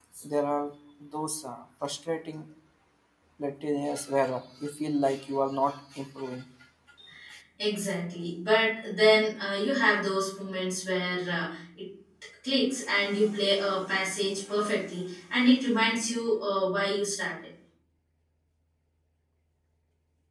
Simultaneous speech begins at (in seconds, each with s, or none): none